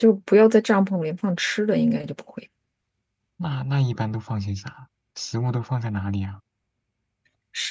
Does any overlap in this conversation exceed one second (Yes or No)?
No